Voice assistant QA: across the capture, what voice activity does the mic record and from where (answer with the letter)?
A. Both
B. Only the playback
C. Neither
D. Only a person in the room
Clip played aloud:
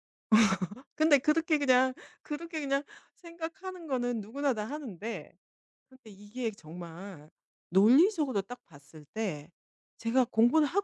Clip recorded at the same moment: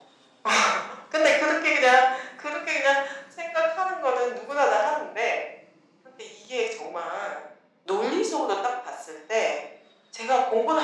B